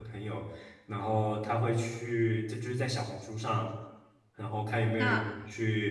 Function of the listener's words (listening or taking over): listening